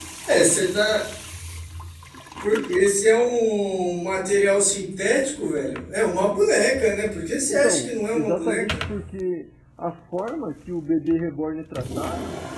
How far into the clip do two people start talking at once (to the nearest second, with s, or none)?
8 s